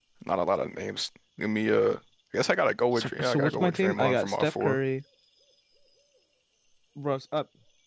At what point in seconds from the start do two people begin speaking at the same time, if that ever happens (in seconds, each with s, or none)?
2.9 s